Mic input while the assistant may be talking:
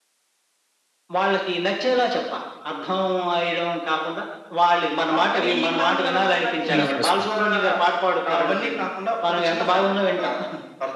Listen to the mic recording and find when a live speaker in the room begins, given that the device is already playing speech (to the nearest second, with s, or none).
7 s